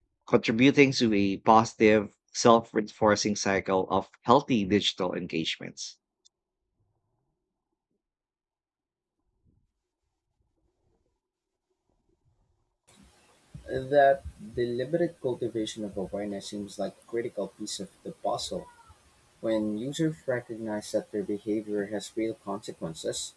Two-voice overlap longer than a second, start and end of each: none

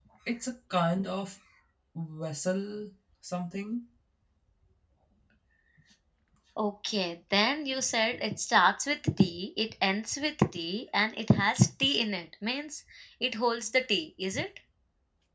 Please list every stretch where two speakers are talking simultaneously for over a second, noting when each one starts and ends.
none

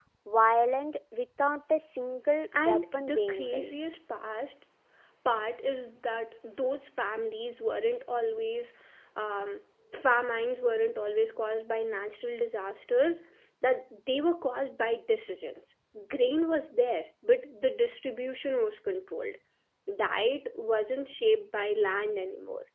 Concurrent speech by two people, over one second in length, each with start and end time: 2.6-3.9

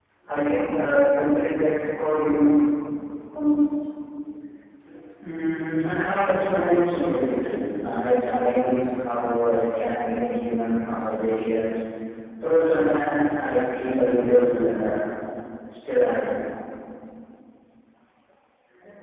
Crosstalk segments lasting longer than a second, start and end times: none

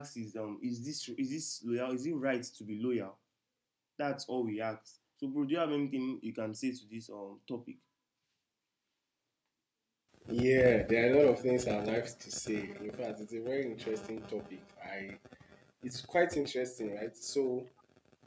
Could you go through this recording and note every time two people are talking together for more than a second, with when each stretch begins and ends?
none

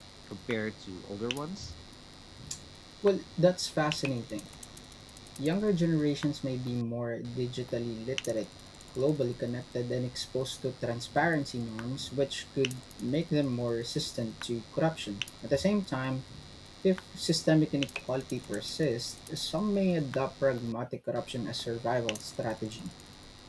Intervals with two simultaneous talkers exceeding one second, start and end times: none

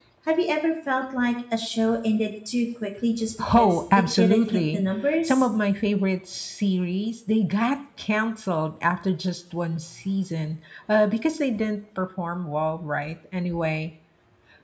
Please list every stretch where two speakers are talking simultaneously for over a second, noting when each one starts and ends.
3.5-4.8

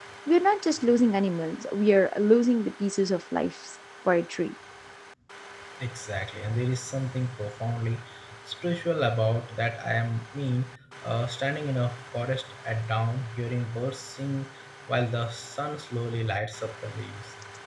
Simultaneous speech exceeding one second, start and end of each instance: none

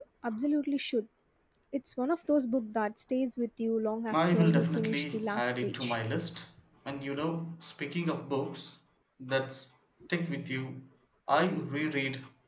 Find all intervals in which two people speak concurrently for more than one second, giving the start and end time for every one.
4.1-6.0

